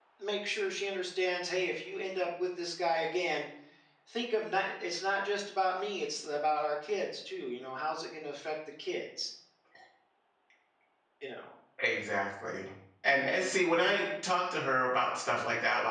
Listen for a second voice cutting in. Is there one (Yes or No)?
No